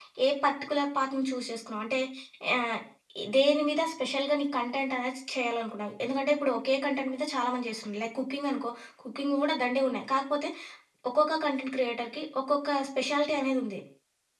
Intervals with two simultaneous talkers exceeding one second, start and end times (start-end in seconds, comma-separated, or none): none